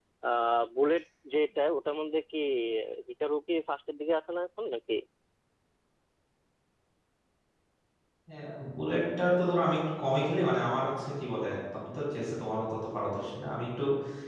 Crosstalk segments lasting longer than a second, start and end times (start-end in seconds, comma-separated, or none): none